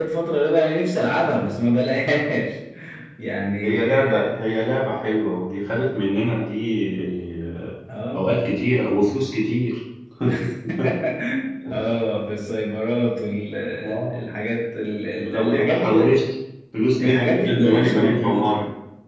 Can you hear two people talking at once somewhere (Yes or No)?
Yes